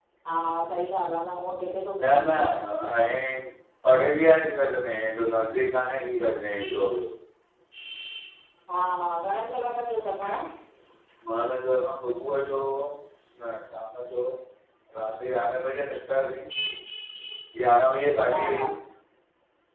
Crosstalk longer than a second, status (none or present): none